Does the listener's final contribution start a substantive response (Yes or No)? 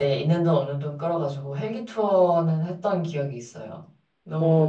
Yes